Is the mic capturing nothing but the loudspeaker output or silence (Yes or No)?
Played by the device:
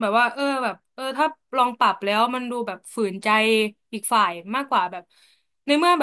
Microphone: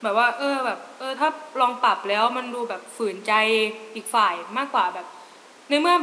Yes